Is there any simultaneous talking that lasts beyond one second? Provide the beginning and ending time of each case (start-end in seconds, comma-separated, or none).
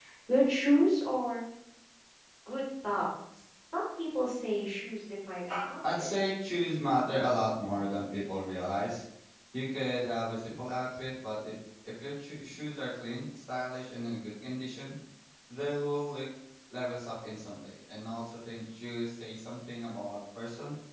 none